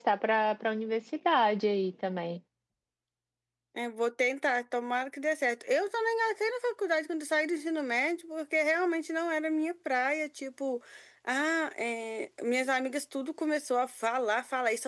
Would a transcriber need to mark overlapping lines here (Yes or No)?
No